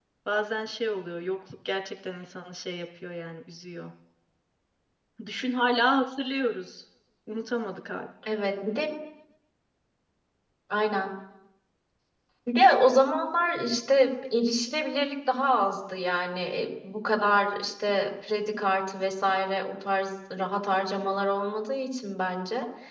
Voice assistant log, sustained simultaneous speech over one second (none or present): none